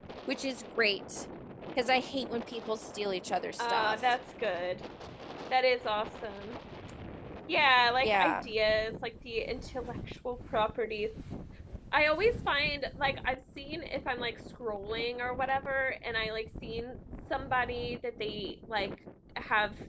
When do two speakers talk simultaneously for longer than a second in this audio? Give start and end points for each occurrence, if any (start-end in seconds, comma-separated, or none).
none